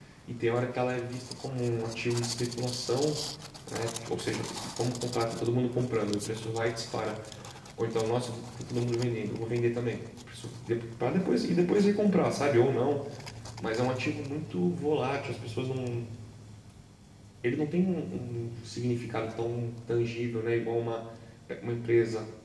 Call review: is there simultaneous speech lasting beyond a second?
No

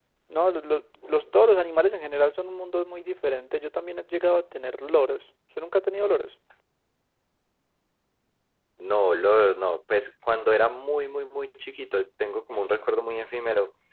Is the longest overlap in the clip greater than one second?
No

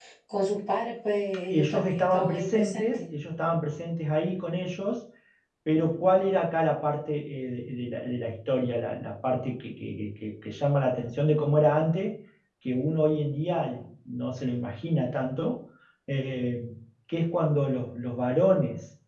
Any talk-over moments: Yes, from 1.5 s

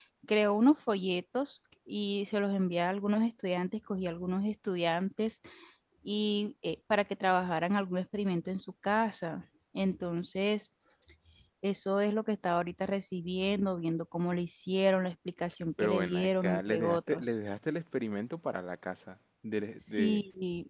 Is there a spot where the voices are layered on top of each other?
Yes, from 15.8 s

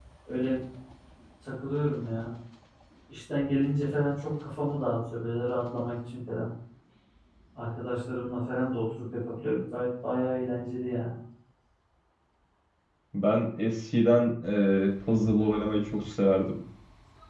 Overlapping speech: No

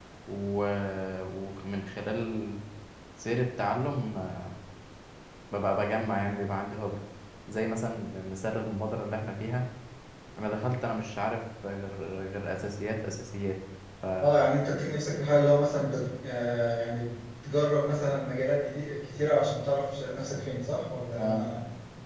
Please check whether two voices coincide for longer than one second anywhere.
No

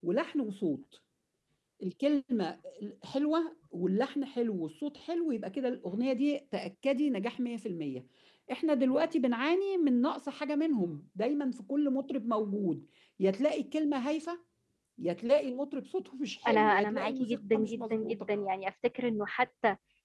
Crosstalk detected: Yes, from 16.4 s

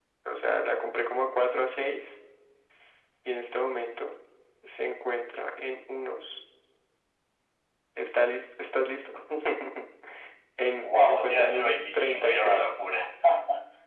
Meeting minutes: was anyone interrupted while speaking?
Yes, from 10.8 s

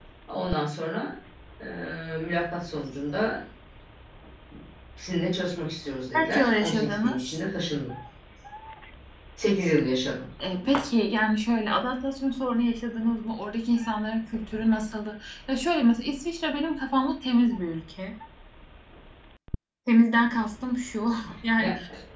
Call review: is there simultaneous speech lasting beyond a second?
Yes, from 6.1 s

